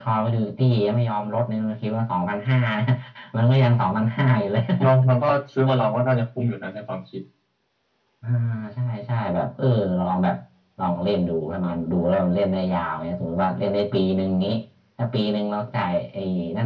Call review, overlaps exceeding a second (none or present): none